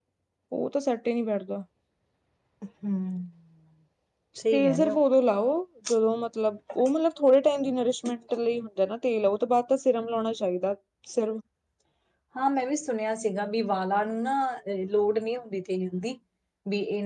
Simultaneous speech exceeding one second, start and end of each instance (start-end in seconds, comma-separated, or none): none